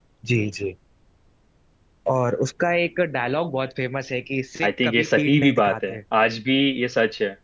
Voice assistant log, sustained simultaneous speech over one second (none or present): present